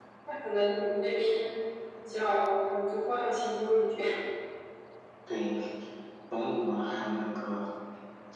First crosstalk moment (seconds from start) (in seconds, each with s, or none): none